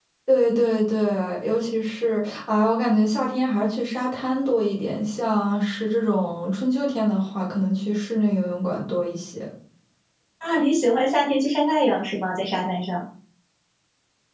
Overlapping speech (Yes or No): No